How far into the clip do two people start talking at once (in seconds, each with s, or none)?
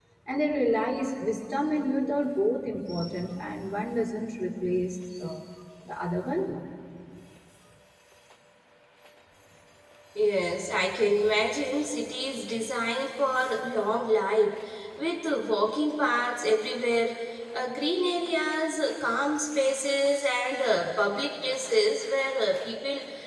none